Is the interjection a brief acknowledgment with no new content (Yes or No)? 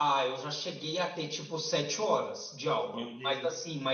Yes